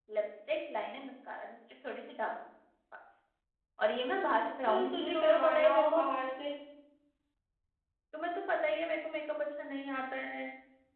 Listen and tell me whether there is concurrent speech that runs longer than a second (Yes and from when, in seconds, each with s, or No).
Yes, from 4.7 s